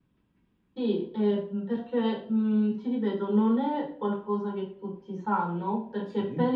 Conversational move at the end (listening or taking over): listening